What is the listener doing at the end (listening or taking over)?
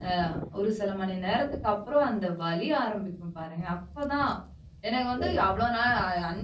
listening